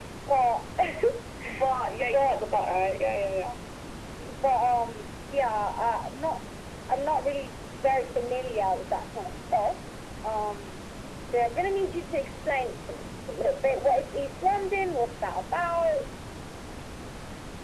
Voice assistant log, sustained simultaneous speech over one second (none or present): none